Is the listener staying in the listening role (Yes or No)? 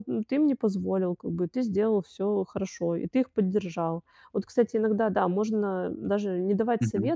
Yes